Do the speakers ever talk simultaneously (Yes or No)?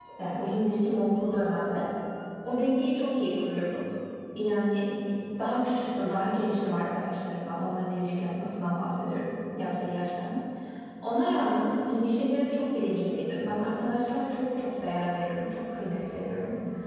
No